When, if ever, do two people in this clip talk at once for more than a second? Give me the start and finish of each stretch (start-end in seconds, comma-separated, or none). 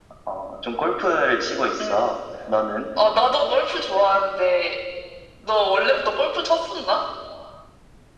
none